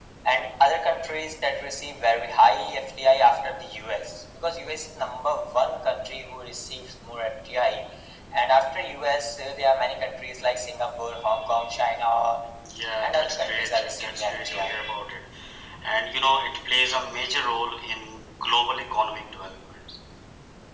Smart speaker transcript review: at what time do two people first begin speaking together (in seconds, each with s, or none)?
13.0 s